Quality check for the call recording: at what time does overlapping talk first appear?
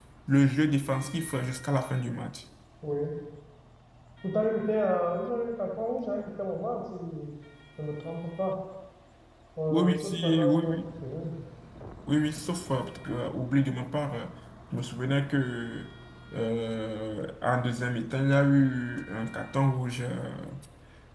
9.7 s

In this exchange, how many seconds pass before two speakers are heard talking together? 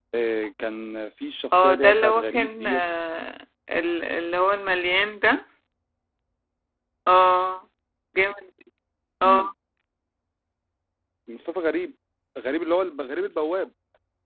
1.5 s

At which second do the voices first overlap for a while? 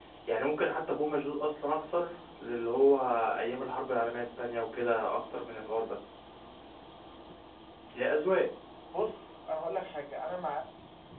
none

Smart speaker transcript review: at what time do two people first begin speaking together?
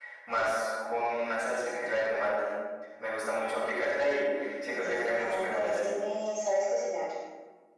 4.7 s

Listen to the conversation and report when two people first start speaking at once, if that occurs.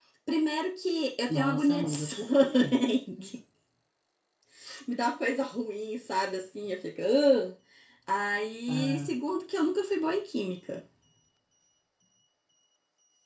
1.3 s

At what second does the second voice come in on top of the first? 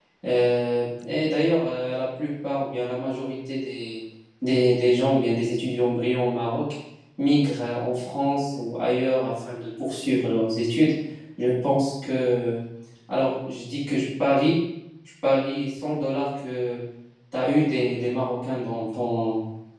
none

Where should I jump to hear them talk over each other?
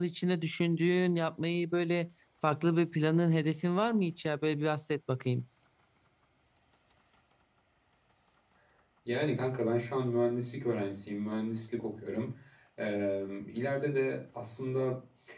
none

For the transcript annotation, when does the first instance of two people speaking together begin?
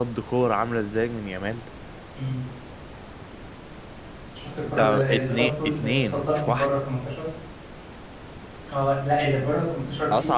4.7 s

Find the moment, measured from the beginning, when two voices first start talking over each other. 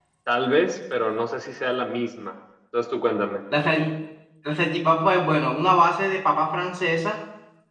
none

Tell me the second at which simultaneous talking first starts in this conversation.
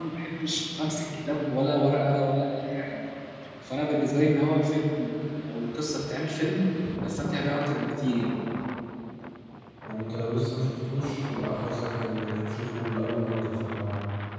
none

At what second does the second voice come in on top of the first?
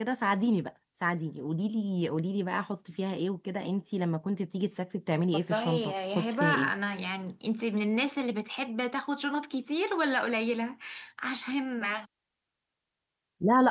5.5 s

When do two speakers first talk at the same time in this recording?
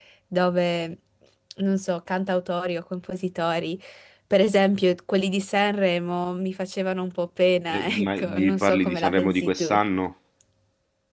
7.7 s

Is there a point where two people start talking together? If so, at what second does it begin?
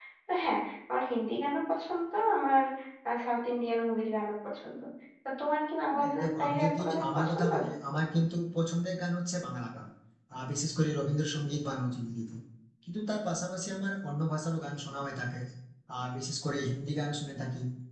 5.9 s

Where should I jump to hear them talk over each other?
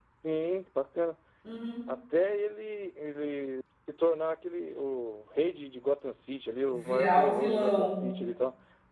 6.7 s

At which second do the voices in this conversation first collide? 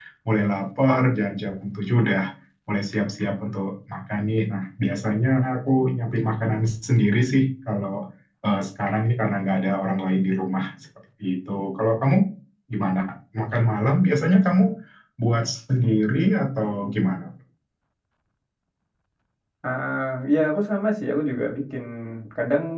none

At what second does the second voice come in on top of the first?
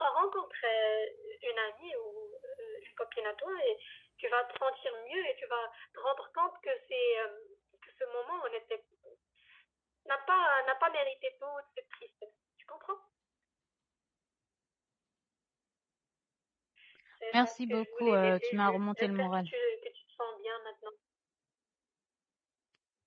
17.3 s

